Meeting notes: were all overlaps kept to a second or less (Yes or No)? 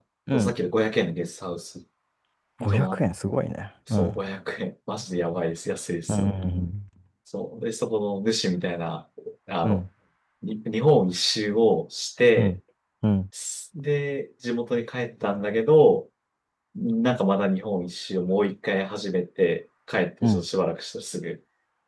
Yes